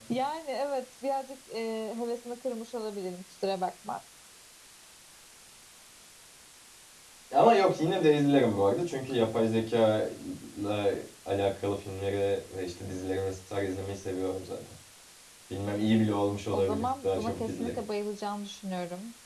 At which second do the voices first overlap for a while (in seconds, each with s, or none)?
16.5 s